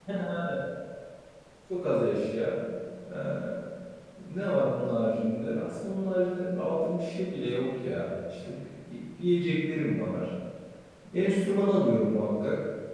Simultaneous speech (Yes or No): No